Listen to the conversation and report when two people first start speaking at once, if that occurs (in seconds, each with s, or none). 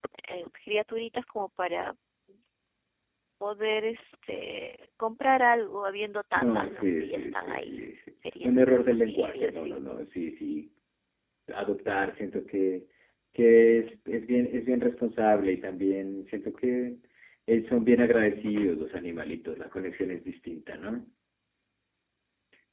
6.4 s